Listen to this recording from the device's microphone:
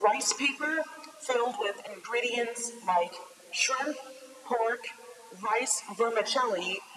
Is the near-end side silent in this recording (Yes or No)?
Yes